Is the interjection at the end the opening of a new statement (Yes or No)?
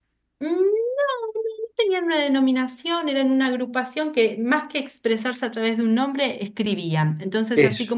No